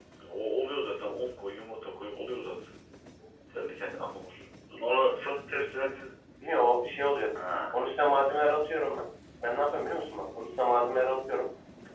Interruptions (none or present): none